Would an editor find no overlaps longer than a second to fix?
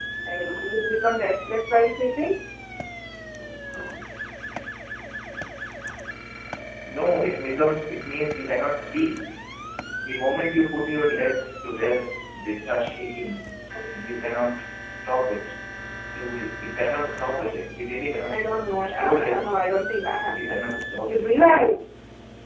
No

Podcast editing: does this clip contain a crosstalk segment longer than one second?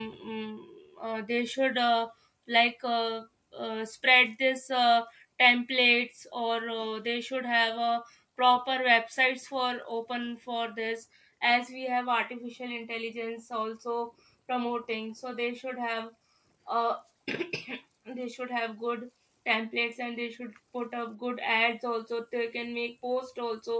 No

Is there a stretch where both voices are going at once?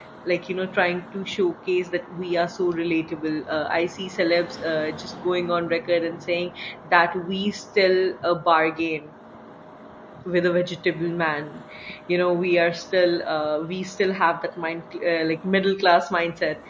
No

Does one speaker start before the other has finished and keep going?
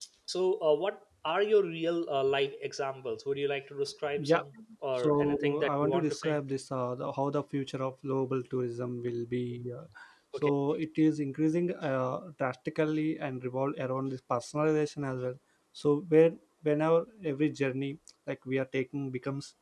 Yes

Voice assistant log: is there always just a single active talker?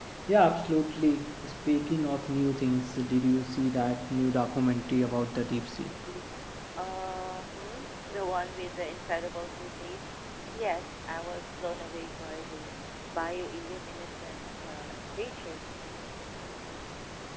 Yes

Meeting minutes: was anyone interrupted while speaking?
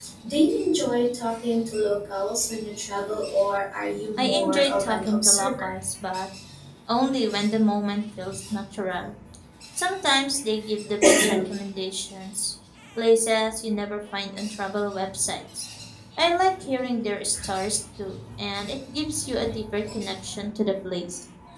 Yes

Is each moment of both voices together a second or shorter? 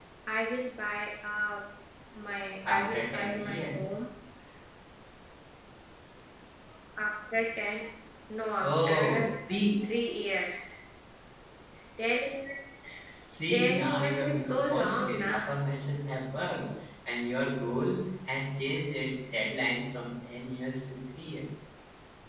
No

